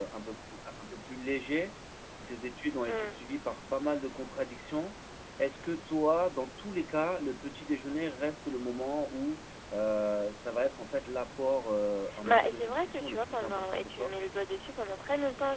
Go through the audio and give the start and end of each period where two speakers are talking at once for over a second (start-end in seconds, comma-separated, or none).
12.2-14.1